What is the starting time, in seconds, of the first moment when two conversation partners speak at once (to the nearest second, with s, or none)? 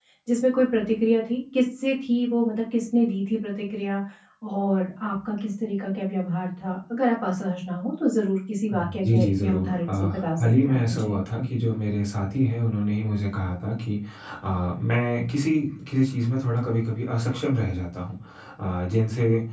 9 s